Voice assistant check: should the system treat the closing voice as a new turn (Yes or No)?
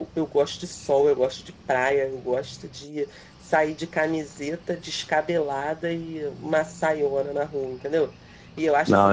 Yes